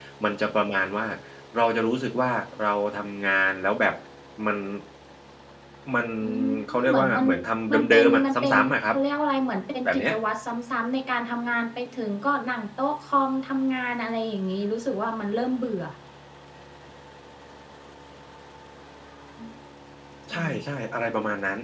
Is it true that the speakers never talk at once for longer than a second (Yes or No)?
No